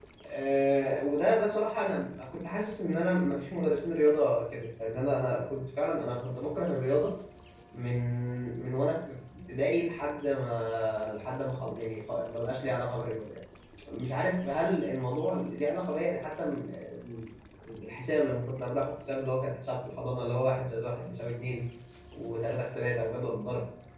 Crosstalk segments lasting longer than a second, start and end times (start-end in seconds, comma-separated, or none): none